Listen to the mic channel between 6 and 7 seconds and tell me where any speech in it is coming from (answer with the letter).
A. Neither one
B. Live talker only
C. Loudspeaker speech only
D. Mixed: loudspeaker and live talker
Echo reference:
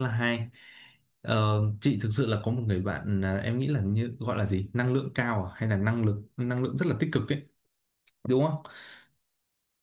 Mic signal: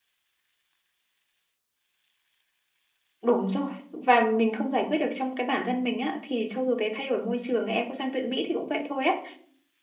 B